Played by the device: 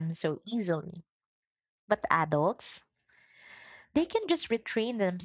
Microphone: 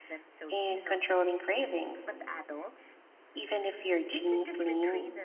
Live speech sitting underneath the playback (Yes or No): No